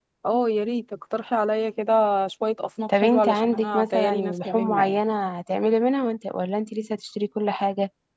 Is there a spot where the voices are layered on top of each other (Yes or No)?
Yes